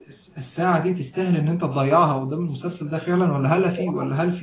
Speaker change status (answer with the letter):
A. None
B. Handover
A